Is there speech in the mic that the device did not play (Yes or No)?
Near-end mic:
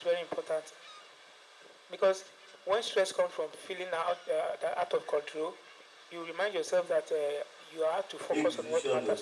Yes